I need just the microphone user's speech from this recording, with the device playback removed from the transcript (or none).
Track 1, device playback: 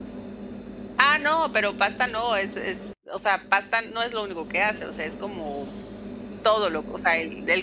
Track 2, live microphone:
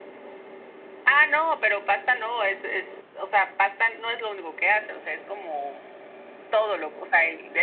none